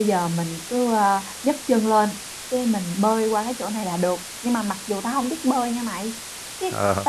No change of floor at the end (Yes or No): Yes